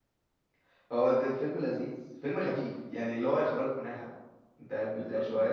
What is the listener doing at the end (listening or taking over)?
taking over